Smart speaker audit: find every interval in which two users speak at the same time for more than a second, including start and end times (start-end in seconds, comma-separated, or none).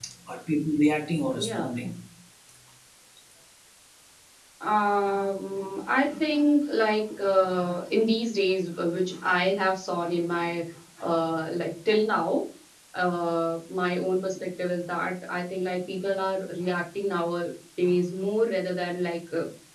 none